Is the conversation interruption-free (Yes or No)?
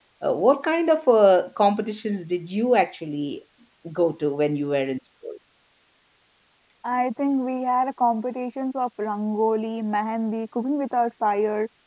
Yes